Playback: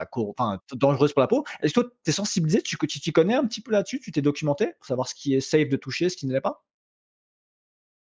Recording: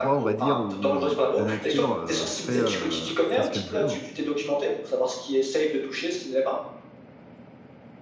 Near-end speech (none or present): present